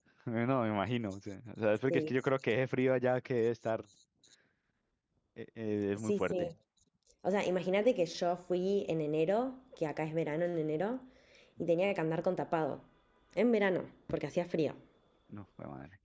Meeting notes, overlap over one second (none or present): none